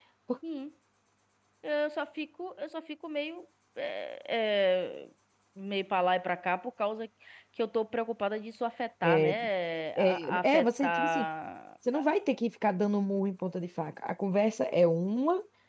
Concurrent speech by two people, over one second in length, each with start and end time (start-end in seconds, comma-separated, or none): 10.0-11.3